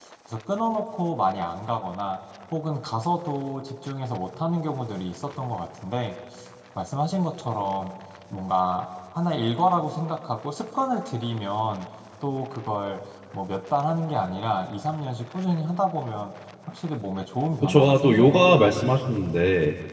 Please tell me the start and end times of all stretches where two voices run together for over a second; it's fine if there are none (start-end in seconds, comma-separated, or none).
17.6-18.8